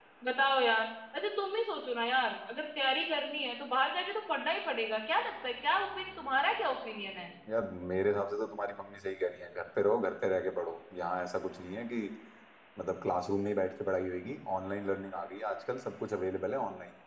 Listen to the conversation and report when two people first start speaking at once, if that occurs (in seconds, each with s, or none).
none